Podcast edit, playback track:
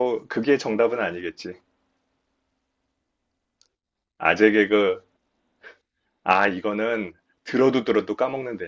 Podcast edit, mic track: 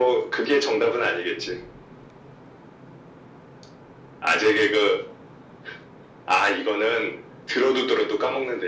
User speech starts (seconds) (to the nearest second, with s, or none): none